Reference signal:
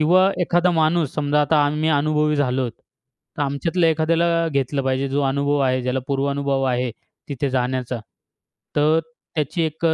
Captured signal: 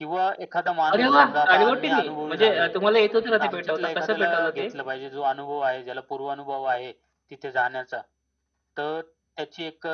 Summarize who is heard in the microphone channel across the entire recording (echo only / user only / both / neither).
both